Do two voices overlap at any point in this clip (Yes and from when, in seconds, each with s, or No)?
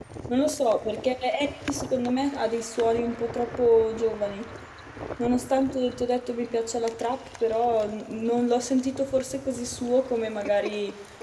No